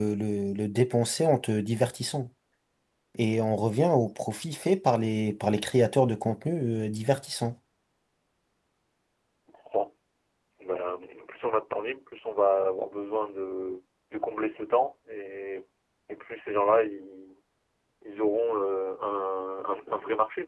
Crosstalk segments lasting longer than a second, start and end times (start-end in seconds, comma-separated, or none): none